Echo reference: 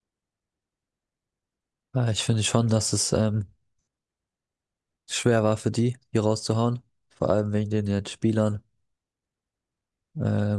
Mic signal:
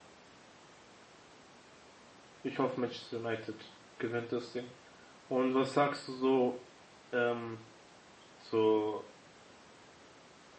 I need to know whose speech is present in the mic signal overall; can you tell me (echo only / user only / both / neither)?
user only